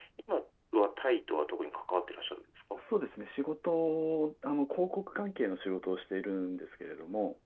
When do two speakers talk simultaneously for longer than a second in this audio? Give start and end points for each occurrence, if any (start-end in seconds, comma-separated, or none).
none